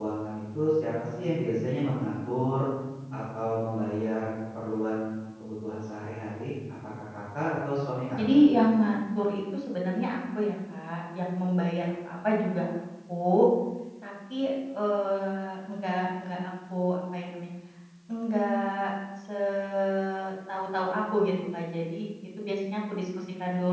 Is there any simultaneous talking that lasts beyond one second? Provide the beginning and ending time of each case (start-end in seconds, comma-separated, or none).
none